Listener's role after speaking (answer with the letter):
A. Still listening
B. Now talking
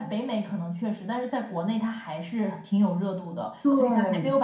A